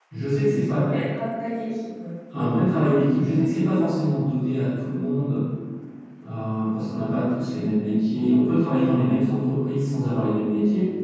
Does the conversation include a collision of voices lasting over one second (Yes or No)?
No